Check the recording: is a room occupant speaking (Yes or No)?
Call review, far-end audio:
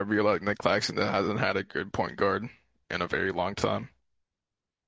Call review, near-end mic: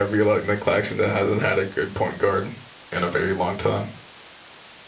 No